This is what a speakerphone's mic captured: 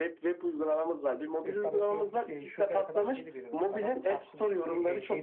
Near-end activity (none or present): present